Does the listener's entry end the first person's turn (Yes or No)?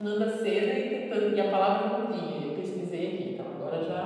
Yes